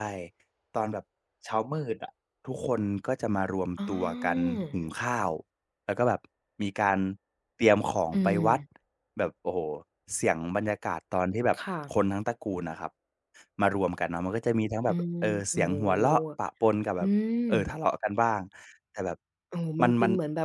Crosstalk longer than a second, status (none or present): present